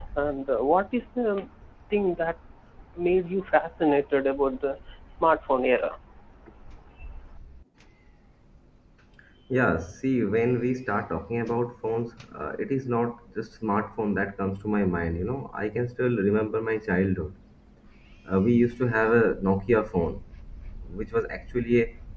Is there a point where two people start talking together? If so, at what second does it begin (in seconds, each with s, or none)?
none